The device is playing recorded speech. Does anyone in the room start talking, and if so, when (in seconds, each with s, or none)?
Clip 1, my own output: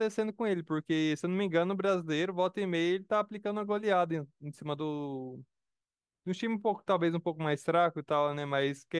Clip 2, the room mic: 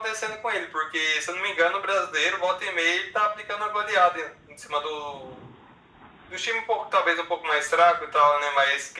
none